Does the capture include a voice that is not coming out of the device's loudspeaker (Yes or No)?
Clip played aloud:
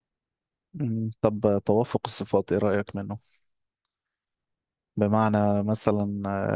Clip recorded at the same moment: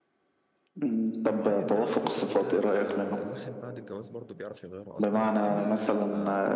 Yes